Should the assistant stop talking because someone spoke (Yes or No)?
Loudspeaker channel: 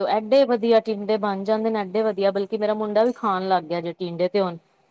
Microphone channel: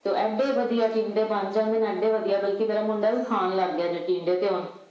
No